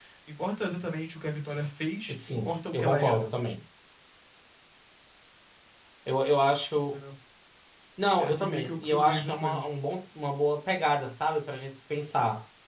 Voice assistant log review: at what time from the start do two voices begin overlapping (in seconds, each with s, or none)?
2.1 s